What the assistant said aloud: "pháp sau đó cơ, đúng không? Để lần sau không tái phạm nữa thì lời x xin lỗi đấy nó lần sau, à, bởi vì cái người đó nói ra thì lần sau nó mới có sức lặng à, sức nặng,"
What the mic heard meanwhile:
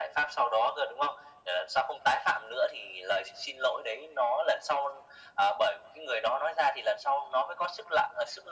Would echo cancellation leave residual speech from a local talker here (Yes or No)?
No